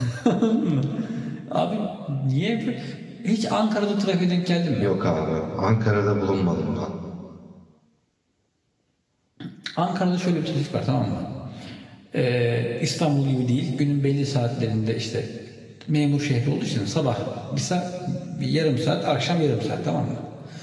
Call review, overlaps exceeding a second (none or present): none